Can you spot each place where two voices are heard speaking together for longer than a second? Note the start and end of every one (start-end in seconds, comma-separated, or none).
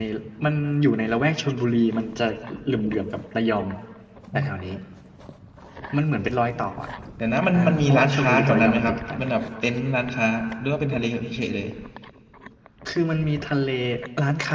7.5-9.2